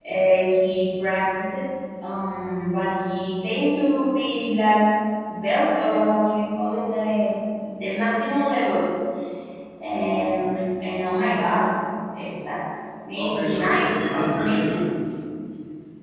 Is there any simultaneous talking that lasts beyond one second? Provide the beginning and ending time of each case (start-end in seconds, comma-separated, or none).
13.1-14.9